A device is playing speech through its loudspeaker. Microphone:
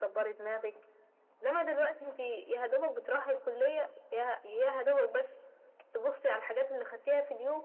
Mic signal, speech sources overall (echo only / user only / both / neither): echo only